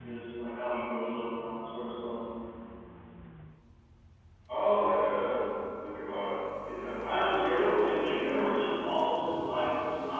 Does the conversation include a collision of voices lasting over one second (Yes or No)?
Yes